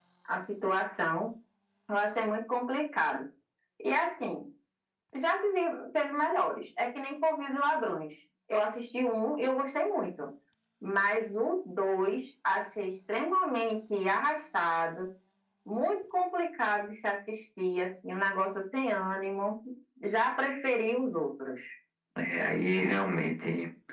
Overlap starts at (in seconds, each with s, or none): none